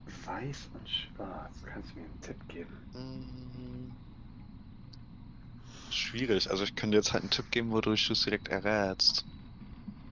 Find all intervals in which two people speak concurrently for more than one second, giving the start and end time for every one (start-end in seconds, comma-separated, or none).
none